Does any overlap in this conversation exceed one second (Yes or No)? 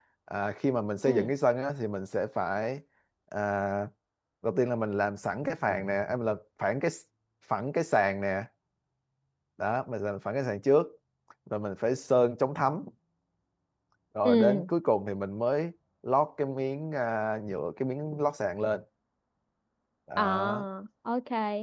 No